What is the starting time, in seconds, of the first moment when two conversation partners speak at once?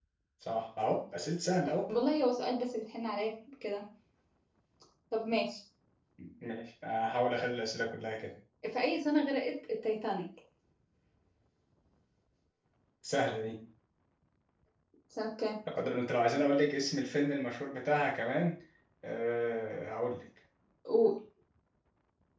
none

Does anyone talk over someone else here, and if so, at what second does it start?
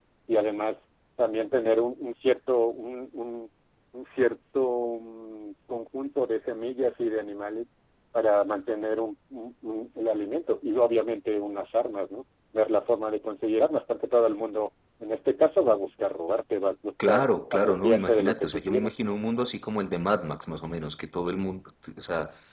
17 s

